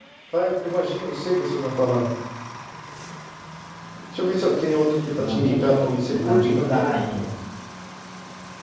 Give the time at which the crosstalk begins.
5.2 s

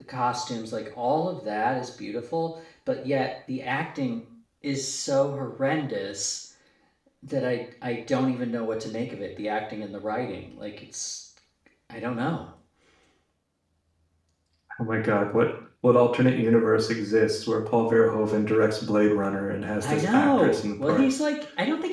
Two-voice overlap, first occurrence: 19.8 s

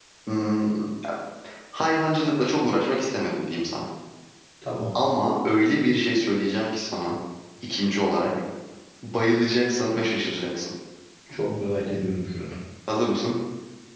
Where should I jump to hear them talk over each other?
none

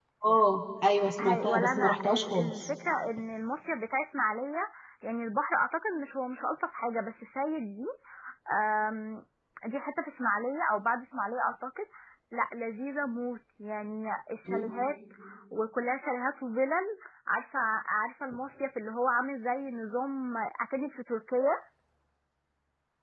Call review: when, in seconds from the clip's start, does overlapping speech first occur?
1.2 s

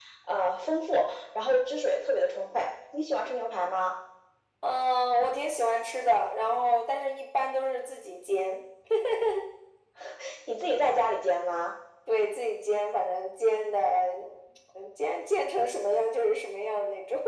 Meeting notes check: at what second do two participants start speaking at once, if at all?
none

